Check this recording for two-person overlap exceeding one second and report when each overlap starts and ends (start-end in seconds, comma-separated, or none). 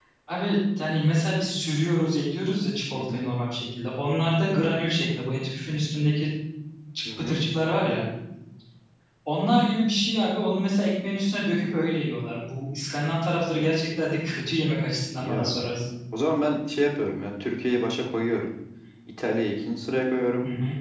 none